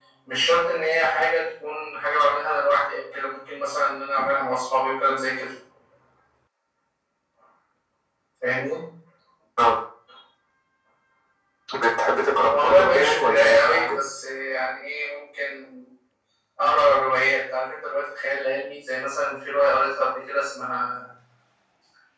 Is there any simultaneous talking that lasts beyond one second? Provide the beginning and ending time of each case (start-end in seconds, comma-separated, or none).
12.5-14.0